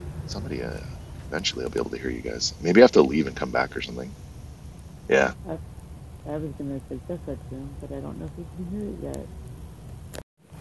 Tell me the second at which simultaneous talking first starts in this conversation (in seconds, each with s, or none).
none